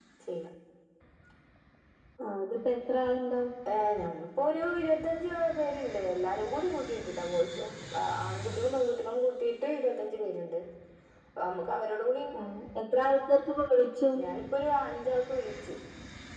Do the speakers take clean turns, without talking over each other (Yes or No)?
Yes